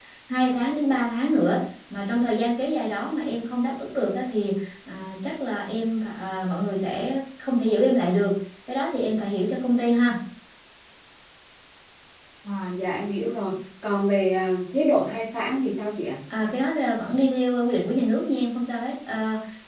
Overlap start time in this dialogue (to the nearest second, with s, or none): none